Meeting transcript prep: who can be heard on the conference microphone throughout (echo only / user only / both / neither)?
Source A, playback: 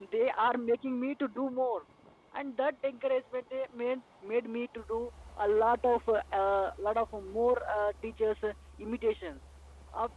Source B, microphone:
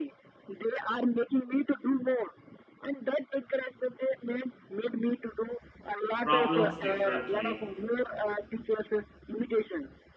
both